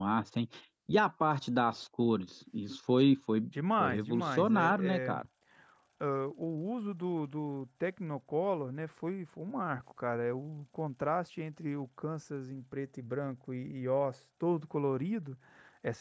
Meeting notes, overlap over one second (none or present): present